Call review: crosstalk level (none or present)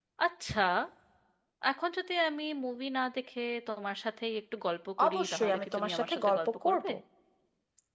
present